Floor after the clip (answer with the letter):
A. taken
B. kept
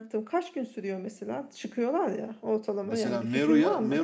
A